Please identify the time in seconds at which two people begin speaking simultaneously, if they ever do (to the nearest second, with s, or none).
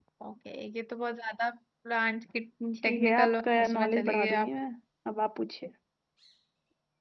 3 s